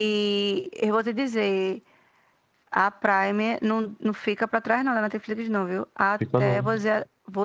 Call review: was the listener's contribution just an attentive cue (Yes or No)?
Yes